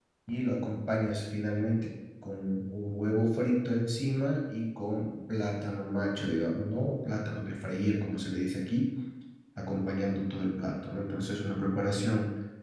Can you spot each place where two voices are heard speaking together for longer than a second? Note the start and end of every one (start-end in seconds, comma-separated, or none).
none